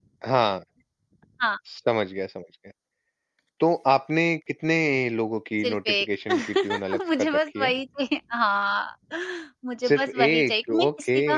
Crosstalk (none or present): present